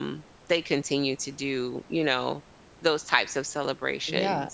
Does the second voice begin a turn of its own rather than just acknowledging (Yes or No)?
Yes